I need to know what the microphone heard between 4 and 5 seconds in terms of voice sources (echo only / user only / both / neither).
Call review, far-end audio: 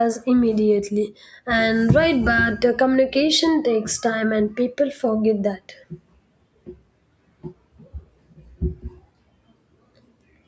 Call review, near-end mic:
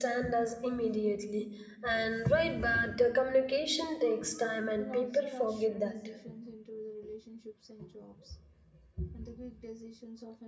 both